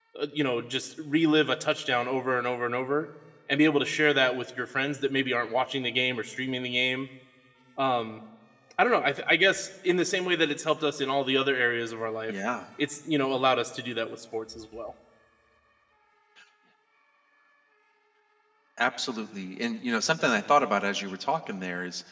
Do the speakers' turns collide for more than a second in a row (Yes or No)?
No